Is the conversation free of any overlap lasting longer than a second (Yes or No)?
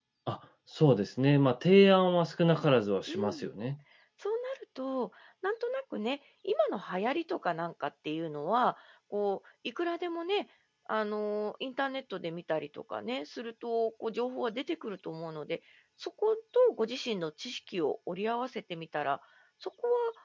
Yes